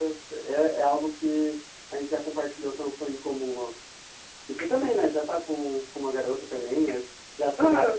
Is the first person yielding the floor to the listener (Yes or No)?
Yes